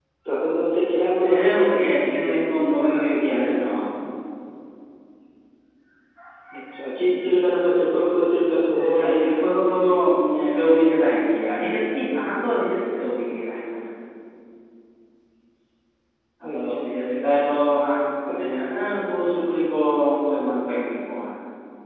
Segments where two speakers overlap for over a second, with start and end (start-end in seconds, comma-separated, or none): 1.3-2.7